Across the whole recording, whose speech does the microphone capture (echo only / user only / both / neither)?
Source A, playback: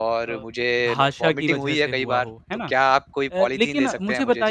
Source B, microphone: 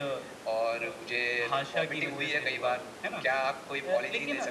echo only